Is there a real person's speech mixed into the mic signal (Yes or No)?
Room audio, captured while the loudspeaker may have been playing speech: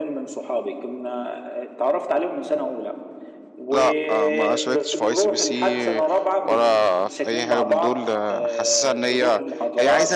Yes